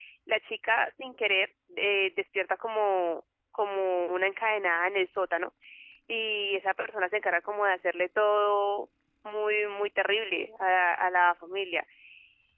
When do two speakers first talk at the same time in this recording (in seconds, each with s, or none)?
none